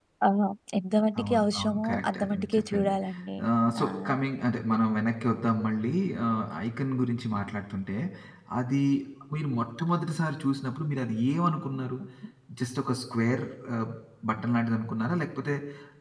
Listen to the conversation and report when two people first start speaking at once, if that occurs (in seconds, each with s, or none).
1.2 s